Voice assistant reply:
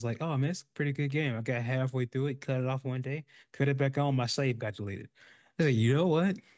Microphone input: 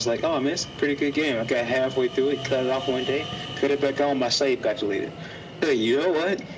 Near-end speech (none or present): none